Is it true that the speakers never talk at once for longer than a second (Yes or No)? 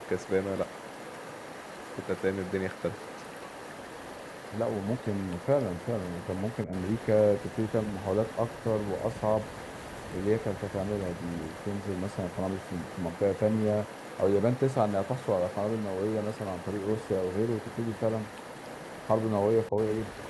Yes